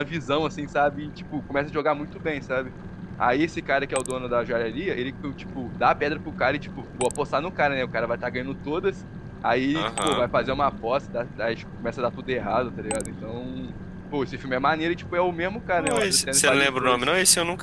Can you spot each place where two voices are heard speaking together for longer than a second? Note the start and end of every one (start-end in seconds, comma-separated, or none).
15.8-17.0